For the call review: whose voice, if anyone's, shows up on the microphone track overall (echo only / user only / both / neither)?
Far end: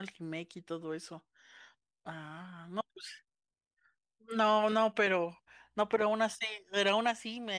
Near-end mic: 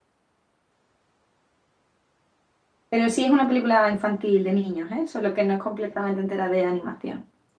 user only